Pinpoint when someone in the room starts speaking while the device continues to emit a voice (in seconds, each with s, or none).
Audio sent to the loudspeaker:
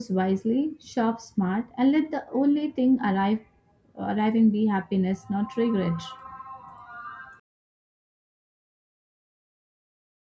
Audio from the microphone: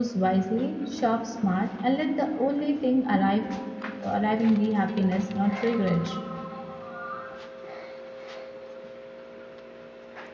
none